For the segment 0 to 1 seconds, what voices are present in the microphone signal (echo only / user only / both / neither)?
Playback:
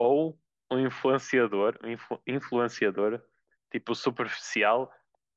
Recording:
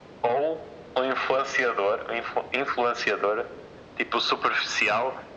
echo only